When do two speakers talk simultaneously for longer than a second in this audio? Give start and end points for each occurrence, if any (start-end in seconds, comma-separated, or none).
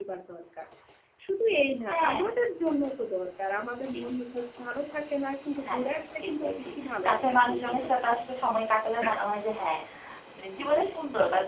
5.7-8.1